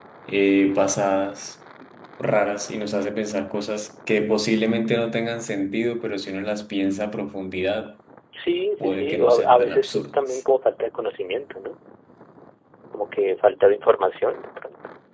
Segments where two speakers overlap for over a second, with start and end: 8.8-10.4

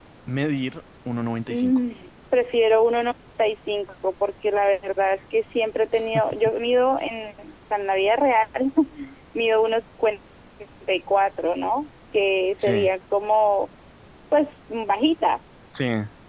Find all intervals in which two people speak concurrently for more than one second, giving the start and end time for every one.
none

